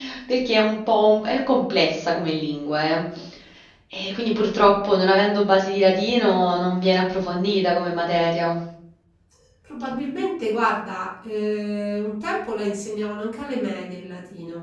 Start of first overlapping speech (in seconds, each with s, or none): none